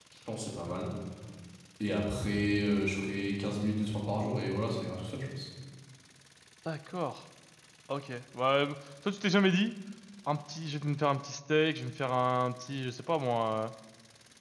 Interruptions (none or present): none